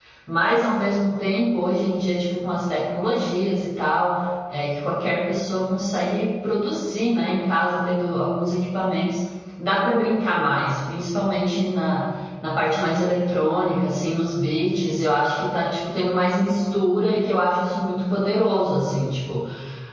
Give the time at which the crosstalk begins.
none

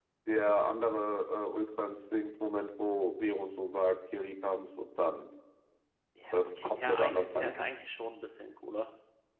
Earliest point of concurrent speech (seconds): 6 s

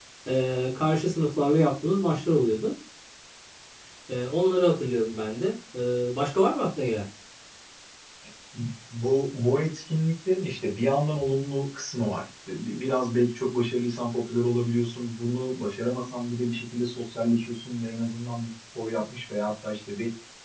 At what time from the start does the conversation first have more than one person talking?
none

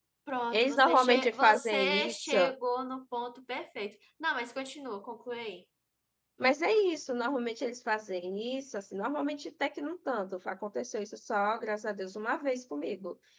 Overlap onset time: 1 s

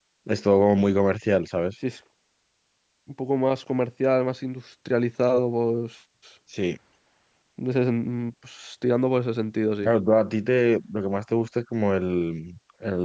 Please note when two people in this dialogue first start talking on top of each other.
none

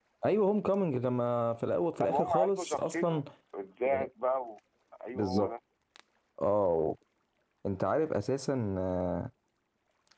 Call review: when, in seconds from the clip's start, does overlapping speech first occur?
2 s

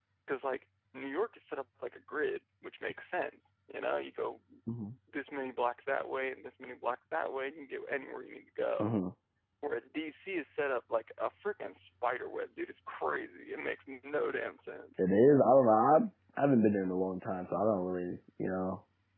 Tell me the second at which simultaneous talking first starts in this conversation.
none

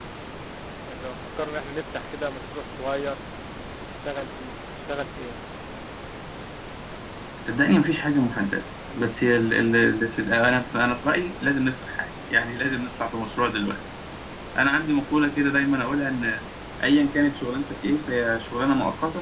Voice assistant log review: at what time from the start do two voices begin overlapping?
none

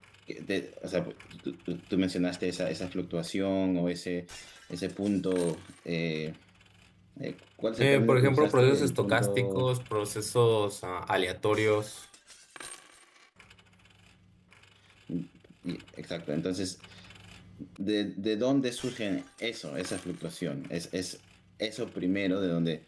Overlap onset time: 8 s

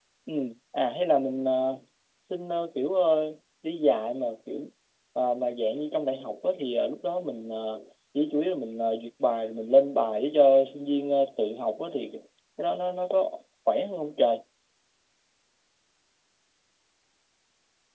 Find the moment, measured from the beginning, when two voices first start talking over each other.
none

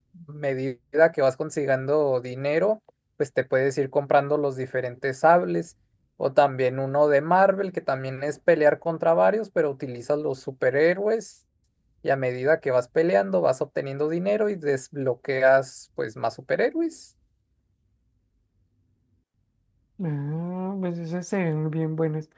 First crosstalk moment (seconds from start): none

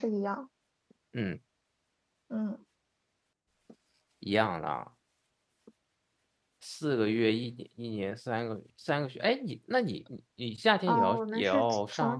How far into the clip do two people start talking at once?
11 s

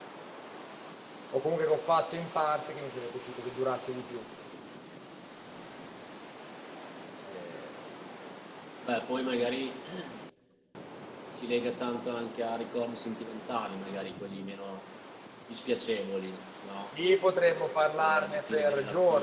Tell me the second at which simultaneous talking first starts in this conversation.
18 s

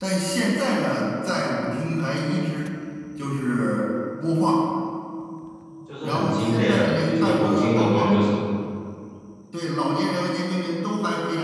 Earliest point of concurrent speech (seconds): 6 s

